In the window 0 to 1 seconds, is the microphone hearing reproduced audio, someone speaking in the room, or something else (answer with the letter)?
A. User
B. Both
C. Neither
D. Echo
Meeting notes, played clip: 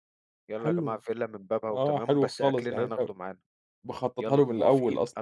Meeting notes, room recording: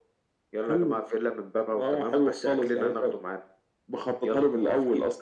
D